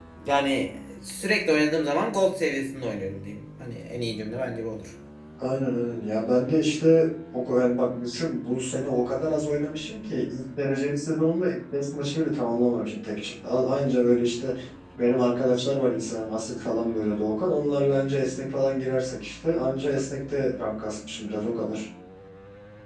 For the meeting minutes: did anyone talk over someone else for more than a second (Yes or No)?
No